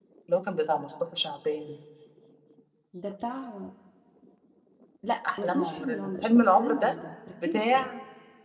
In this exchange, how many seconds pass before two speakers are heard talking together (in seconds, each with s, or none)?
5.4 s